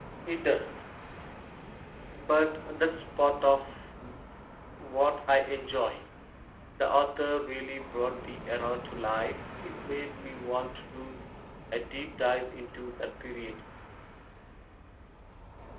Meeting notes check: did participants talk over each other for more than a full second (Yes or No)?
No